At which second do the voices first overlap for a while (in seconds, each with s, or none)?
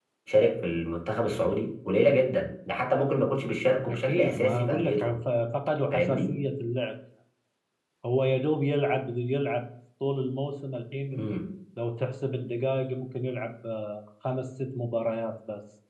3.9 s